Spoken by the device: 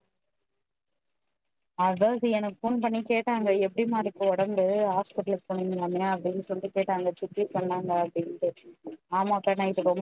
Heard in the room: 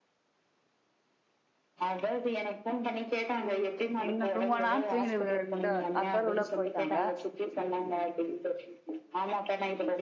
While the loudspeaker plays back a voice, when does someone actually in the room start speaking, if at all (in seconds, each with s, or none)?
4.0 s